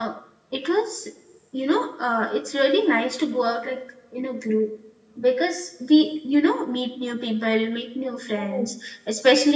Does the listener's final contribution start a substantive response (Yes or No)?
No